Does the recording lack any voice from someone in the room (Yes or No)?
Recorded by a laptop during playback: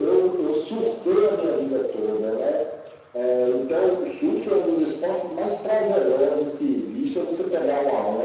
Yes